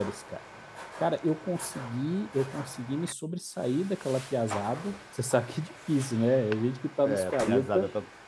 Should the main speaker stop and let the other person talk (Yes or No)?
Yes